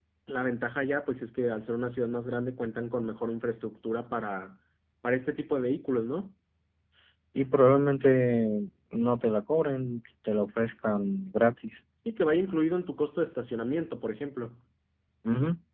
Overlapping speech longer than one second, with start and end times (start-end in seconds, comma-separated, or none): none